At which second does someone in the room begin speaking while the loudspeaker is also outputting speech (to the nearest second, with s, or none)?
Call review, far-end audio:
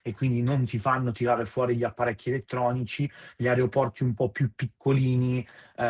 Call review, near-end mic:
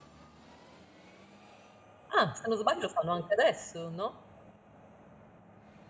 2 s